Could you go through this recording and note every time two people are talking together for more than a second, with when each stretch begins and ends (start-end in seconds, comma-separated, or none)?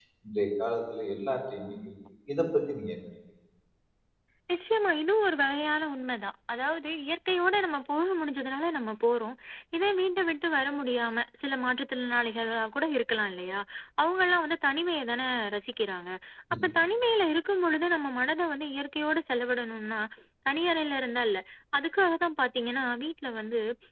none